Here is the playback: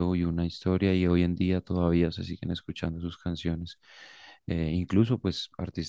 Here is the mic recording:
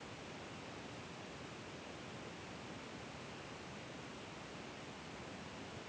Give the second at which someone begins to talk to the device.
none

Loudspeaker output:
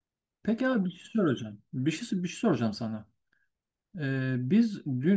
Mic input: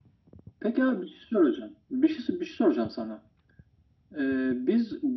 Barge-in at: none

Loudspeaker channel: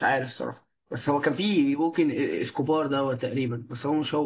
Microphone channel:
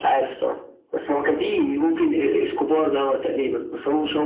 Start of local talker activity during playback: none

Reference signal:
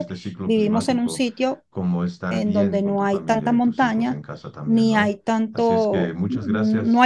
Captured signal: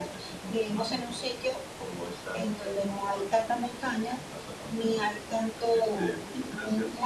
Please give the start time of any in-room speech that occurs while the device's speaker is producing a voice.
none

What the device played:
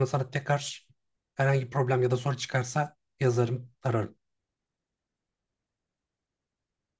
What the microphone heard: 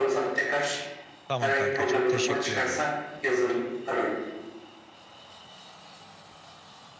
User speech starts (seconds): 1.3 s

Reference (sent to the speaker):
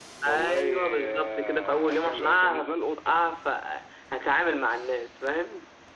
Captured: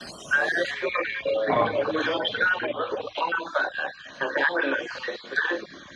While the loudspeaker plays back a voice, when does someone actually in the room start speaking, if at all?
1.5 s

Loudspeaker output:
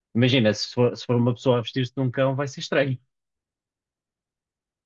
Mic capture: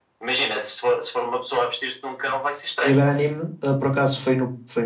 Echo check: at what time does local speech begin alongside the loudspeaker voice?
2.8 s

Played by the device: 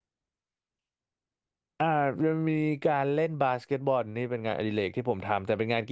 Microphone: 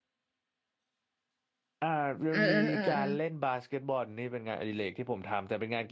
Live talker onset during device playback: 2.3 s

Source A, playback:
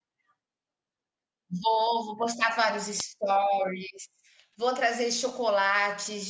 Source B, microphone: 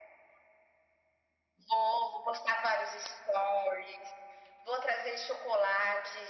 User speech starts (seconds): none

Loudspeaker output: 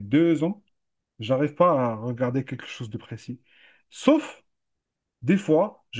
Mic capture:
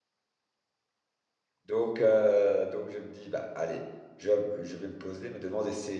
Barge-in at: 1.6 s

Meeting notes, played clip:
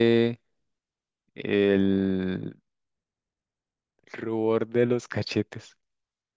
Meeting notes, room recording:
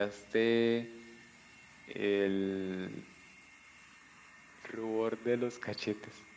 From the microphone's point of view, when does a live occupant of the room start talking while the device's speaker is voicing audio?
none

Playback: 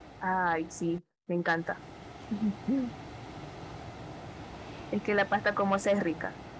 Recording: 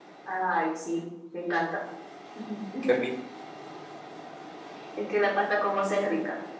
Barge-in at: 2.8 s

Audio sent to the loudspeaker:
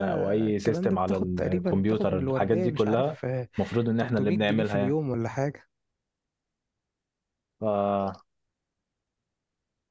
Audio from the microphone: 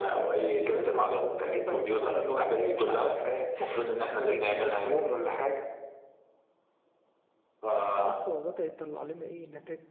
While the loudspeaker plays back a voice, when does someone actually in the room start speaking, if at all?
8.0 s

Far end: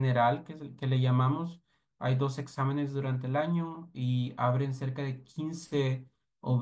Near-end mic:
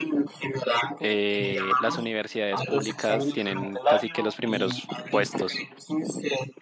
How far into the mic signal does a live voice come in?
1.0 s

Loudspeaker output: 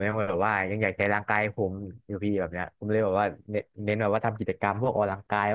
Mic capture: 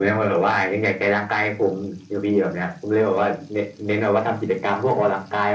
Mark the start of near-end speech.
none

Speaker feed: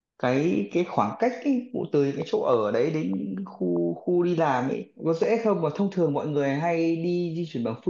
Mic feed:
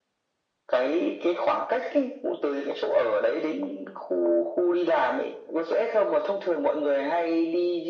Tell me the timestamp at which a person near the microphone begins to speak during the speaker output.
none

